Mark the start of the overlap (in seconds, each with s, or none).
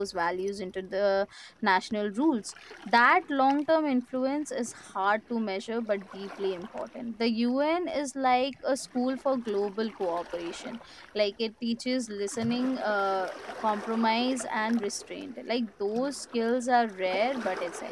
none